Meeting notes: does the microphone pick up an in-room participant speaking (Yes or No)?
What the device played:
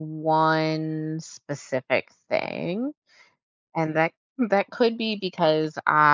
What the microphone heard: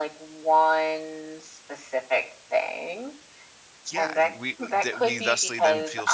Yes